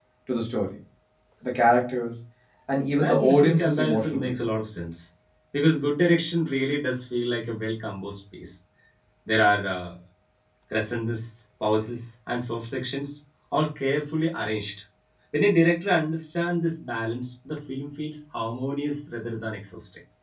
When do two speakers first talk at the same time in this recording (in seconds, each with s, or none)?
2.9 s